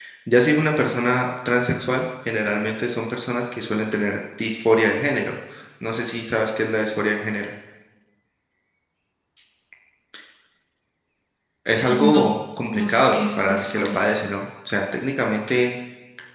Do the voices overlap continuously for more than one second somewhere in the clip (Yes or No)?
Yes